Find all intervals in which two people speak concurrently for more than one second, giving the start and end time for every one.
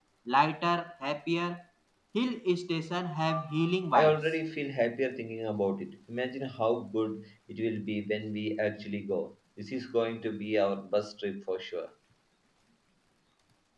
none

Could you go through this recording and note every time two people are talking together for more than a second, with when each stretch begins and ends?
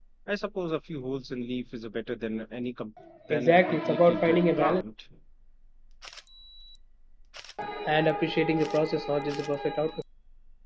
3.3-4.8

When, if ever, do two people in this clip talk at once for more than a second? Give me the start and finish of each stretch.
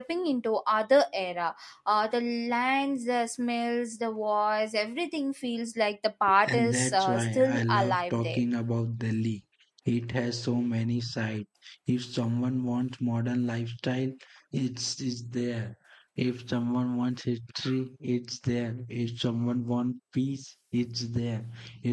6.5-8.4

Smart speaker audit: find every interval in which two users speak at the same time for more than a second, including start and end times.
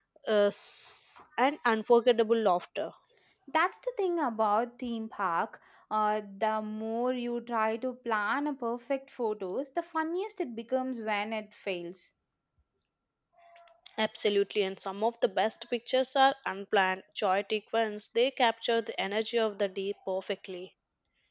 none

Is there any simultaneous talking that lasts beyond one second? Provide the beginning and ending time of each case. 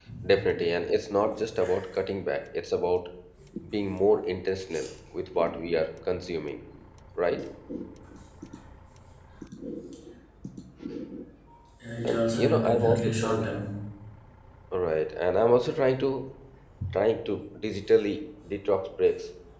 12.1-13.4

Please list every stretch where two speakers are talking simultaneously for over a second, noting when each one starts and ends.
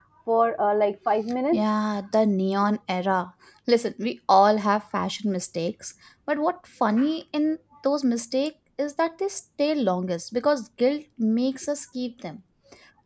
none

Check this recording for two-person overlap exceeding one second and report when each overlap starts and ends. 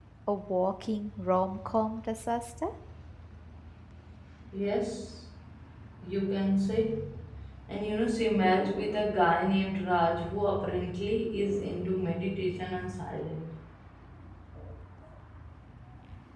none

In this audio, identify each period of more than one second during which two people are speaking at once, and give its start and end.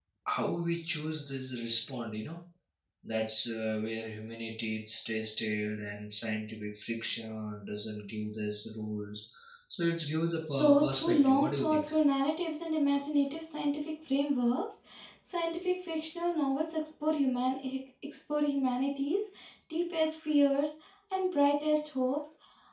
10.5-11.8

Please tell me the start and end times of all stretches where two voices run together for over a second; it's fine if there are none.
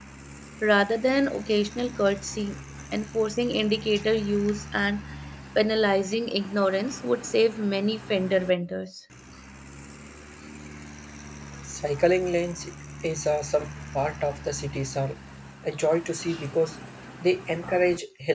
none

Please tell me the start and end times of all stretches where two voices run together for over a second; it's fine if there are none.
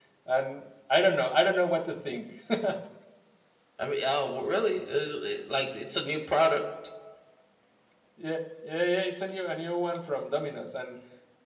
none

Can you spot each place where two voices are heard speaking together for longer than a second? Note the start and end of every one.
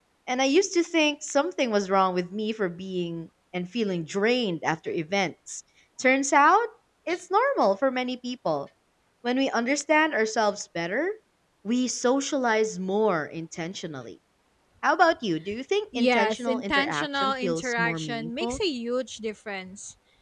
16.0-18.6

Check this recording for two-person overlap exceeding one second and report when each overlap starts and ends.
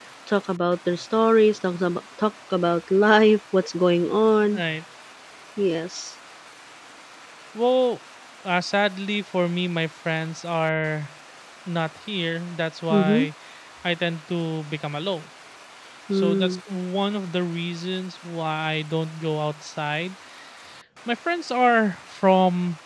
none

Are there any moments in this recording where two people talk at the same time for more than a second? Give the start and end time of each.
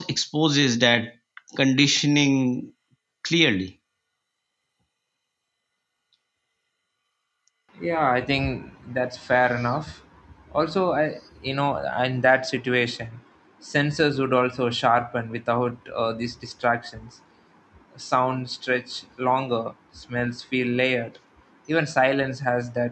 none

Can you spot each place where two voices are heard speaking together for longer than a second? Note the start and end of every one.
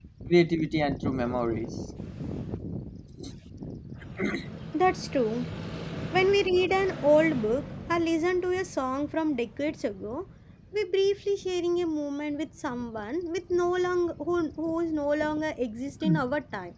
none

